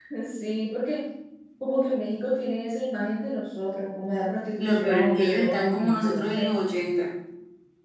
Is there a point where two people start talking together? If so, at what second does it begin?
4.6 s

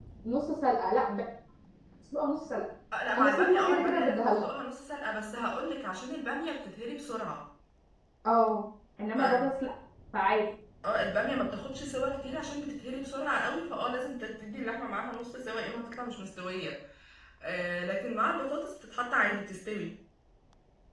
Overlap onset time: 3.1 s

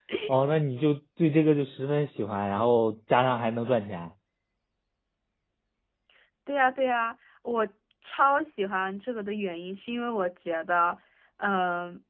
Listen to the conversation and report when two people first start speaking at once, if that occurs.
none

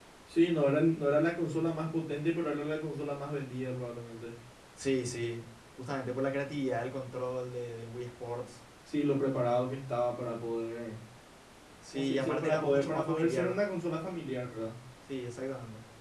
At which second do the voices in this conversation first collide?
11.9 s

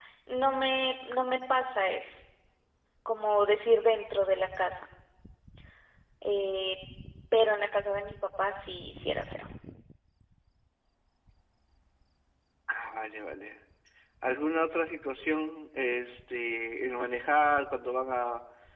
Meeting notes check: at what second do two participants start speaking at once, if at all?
none

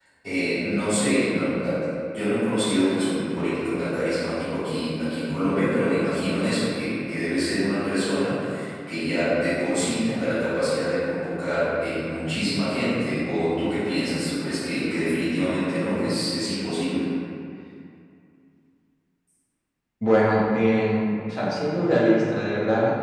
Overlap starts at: none

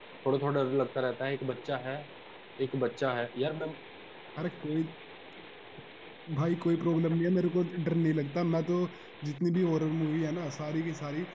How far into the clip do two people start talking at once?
none

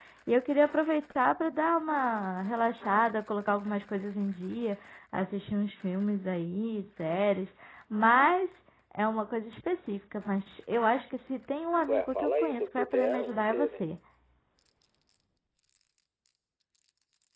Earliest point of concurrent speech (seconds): 11.9 s

